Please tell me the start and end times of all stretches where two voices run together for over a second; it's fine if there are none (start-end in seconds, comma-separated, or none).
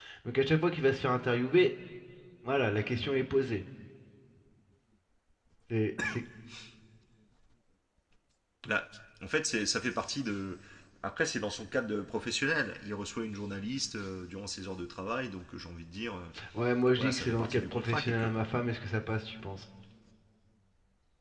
17.0-18.5